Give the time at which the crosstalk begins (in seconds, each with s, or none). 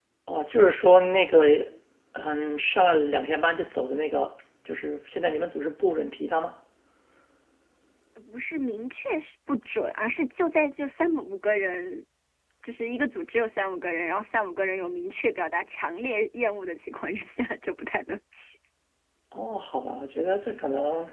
none